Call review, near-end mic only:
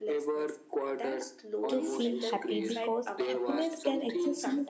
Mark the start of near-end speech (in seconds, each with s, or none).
1.7 s